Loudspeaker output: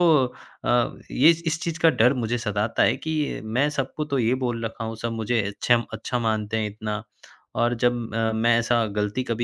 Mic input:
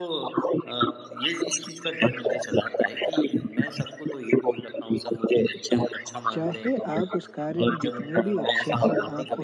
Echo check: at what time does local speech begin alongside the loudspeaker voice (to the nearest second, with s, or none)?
6 s